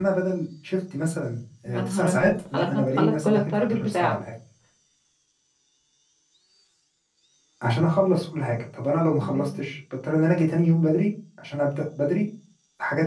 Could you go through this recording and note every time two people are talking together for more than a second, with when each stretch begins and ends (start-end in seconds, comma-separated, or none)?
1.6-4.2